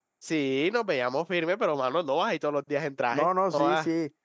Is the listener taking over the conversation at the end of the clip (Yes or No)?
Yes